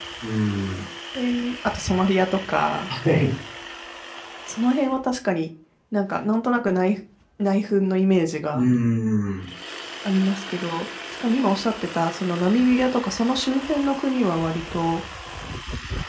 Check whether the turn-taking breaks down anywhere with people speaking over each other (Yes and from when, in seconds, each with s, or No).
No